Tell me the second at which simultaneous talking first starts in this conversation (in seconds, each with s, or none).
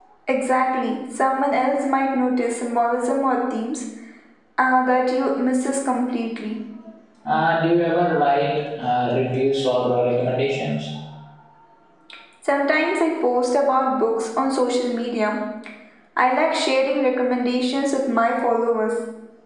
none